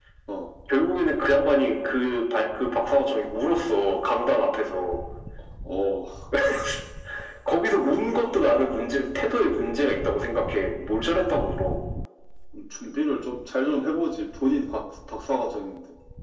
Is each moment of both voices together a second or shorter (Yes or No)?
Yes